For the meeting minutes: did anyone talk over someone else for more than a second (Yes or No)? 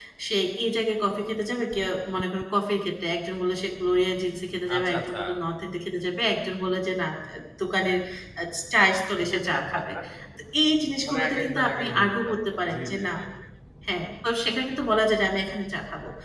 Yes